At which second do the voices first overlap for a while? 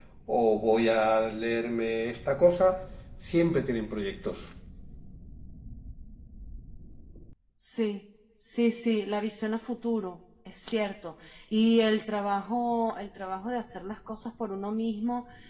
none

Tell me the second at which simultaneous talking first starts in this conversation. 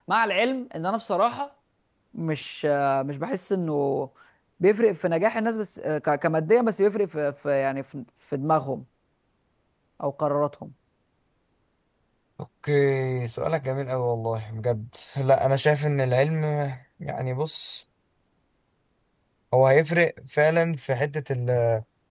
none

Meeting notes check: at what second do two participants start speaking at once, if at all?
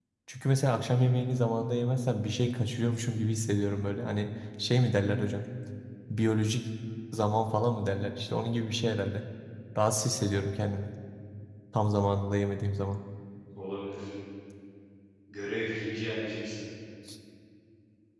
none

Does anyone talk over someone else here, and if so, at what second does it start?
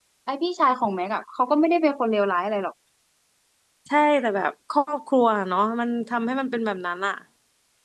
none

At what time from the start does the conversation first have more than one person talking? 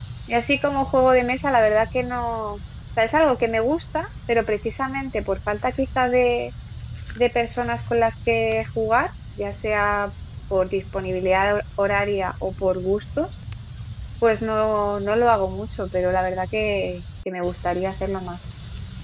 none

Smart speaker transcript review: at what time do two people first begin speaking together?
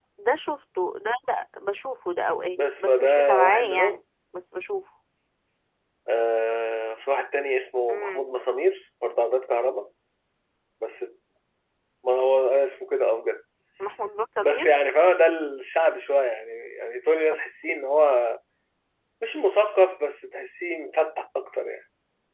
2.6 s

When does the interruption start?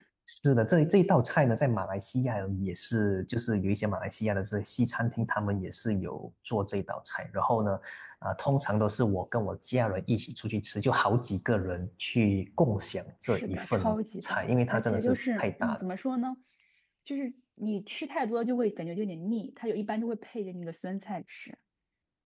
13.2 s

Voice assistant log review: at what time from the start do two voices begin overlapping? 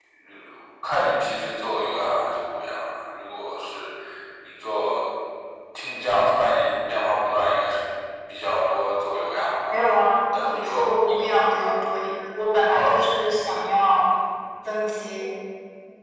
9.7 s

